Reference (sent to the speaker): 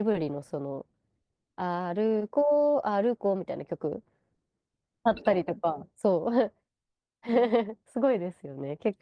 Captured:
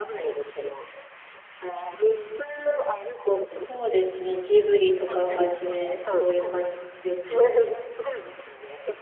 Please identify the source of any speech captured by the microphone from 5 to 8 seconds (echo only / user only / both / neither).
both